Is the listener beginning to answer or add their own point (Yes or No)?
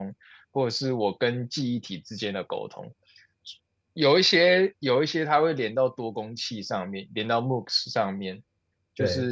No